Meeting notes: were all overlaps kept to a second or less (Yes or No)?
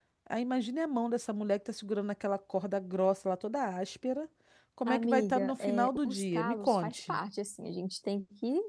No